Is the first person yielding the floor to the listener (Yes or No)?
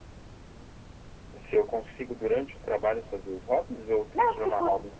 Yes